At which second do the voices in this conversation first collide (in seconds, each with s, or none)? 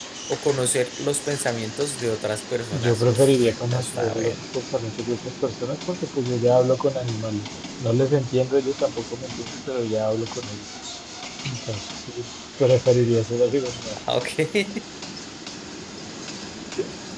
2.7 s